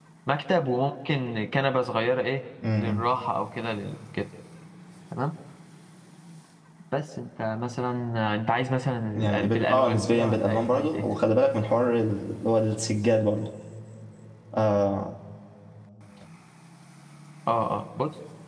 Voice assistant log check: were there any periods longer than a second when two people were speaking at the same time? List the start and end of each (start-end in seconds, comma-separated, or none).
9.3-11.0